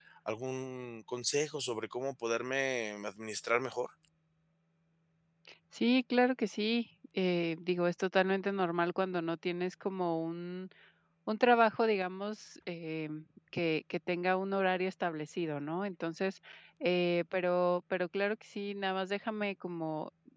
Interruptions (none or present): none